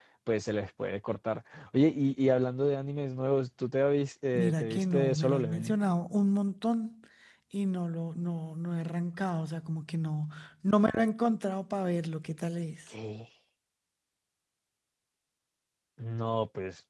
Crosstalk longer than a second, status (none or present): present